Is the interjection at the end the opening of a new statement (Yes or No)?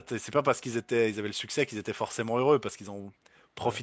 No